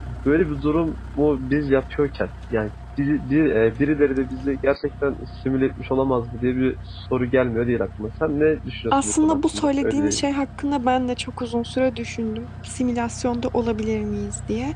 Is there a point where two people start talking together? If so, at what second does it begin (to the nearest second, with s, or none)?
9 s